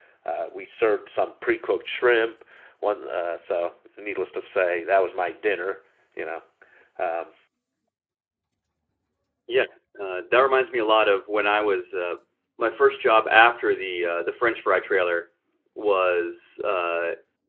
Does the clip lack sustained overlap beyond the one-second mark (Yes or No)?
Yes